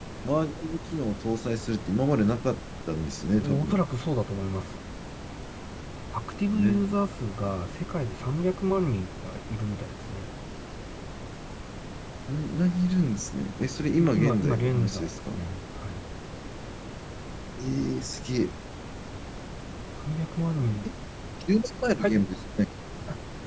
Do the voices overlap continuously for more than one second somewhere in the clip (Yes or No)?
Yes